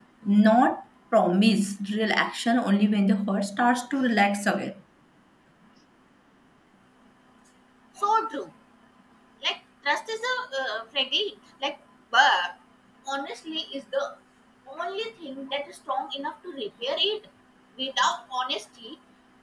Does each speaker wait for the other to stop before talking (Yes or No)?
Yes